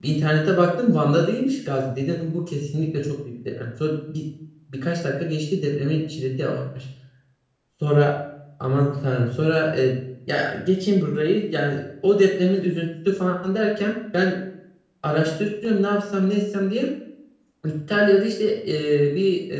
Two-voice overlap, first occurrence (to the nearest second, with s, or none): none